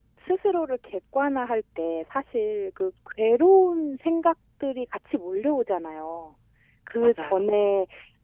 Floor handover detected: No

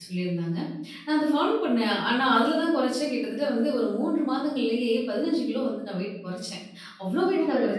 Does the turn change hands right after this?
No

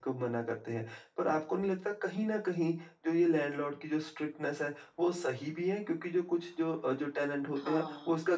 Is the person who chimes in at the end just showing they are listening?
Yes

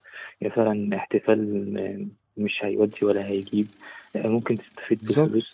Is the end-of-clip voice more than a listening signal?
No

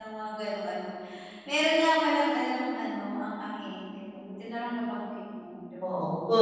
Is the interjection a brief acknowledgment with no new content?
No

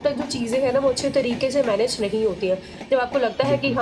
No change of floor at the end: Yes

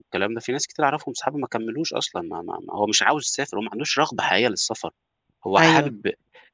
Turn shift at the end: No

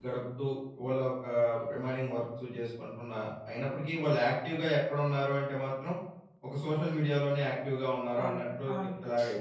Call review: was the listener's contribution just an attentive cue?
No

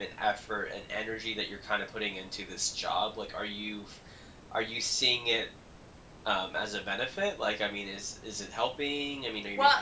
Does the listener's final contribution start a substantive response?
Yes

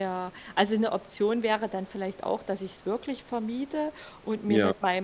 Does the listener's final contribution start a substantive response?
No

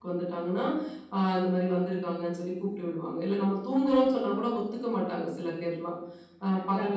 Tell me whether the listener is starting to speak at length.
No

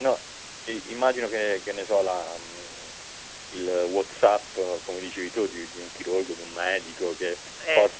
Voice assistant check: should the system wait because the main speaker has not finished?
Yes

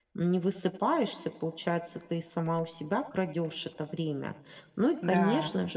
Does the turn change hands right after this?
No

